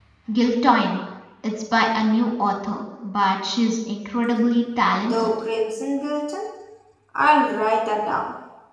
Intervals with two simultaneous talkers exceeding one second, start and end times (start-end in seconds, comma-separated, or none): none